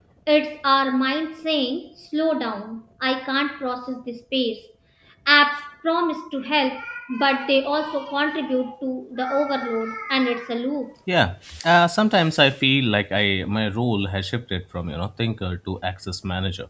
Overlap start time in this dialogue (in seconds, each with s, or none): none